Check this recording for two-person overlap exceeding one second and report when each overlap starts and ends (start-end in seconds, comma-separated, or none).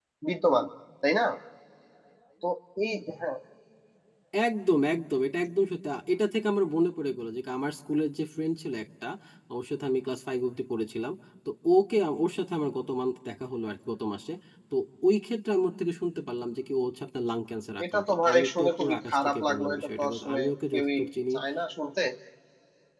17.9-20.8